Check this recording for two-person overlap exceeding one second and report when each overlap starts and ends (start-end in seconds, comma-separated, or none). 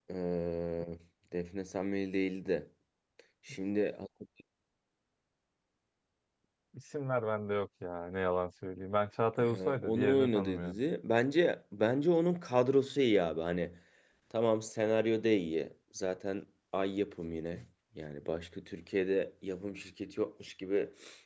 9.4-10.8